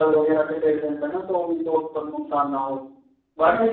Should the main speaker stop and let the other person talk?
No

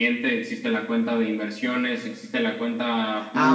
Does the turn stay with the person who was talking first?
No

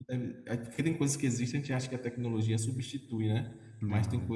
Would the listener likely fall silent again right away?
Yes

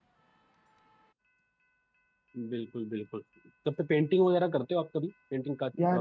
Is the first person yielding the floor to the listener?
Yes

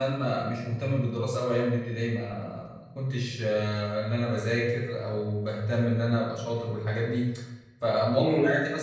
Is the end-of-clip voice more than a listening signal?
No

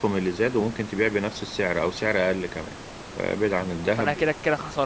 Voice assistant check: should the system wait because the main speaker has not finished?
No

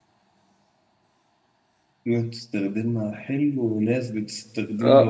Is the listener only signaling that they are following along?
No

